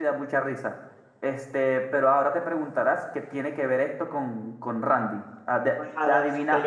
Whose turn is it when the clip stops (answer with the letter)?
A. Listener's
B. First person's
A